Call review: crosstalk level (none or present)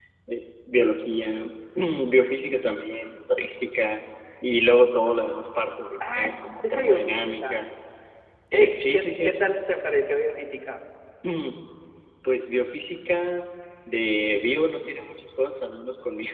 present